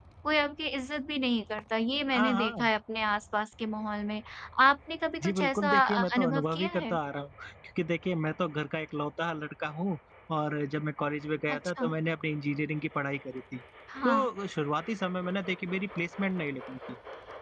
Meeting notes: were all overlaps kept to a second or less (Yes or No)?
No